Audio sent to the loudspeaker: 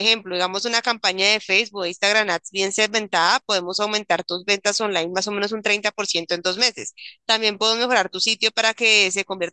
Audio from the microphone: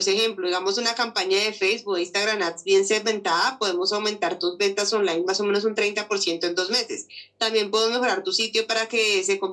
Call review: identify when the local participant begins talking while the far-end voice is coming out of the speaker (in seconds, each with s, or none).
none